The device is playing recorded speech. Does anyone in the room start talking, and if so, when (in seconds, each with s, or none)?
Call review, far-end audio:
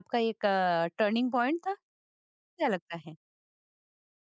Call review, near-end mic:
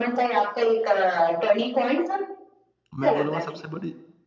3.0 s